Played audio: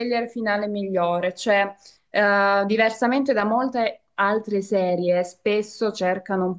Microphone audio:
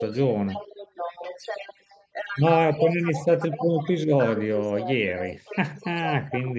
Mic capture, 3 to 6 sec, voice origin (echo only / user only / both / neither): both